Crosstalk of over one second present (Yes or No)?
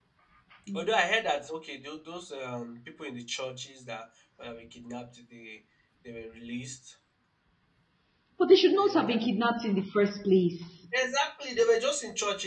No